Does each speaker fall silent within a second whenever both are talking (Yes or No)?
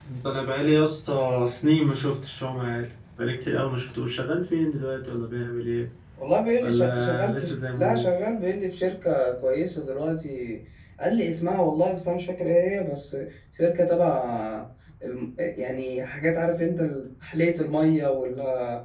No